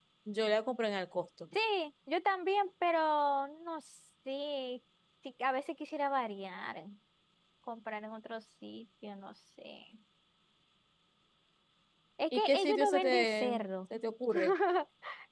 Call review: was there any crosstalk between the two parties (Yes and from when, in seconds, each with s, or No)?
Yes, from 12.3 s